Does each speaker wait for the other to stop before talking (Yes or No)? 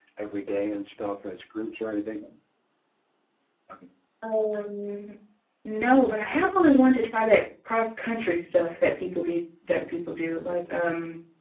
Yes